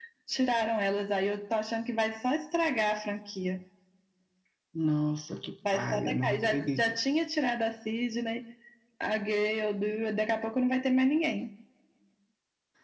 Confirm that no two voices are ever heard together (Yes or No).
No